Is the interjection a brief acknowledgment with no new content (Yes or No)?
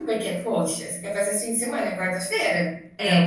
No